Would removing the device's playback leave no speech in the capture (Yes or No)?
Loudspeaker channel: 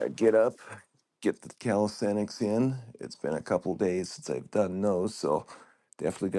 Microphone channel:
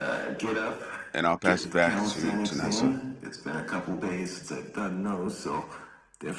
No